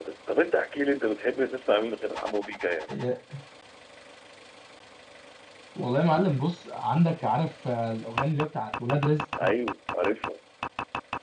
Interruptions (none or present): none